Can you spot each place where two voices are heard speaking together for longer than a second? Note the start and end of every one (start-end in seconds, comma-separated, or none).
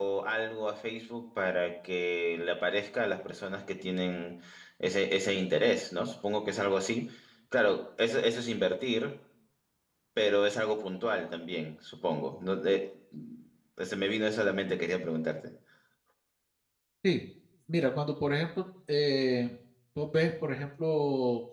none